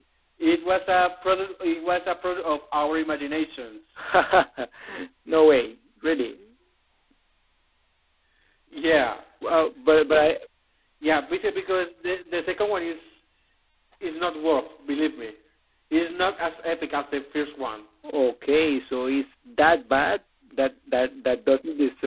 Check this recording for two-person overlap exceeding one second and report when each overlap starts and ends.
none

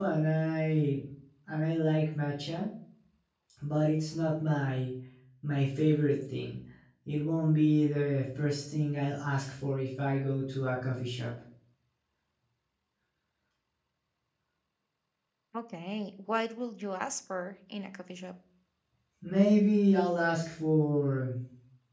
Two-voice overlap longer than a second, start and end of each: none

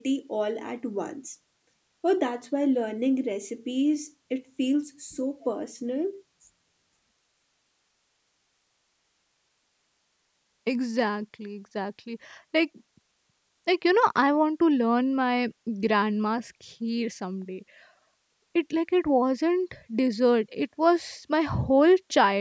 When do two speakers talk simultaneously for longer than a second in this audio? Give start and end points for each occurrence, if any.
none

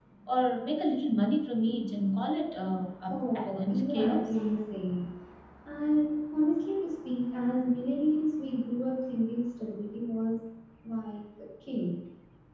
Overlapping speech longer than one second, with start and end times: 3.1-4.3

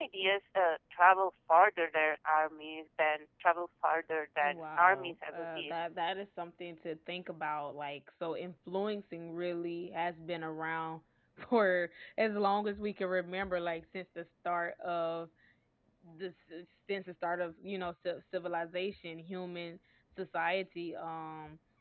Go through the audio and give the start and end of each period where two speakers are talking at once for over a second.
4.4-5.7

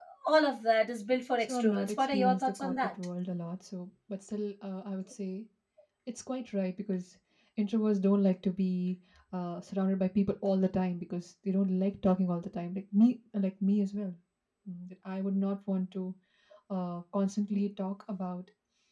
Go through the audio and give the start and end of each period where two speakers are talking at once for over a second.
1.4-2.9

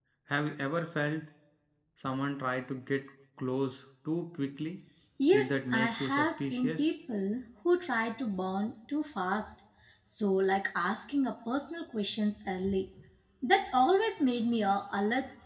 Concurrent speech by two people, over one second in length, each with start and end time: 5.3-6.8

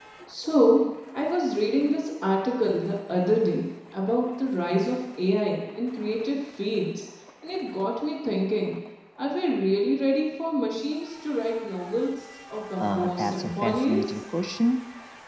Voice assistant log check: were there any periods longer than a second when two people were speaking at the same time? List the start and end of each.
12.8-14.2

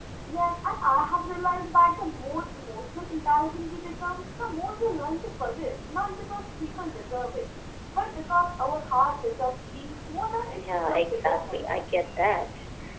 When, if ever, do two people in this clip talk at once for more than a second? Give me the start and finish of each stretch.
10.6-11.8

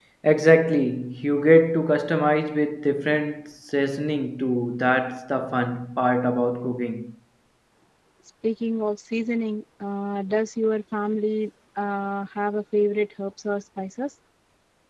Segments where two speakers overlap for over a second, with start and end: none

